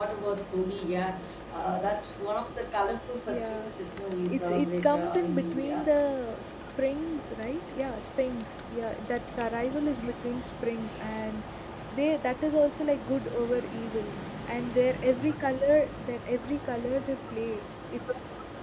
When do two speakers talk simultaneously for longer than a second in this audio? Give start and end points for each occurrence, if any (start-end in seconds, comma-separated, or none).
4.2-5.9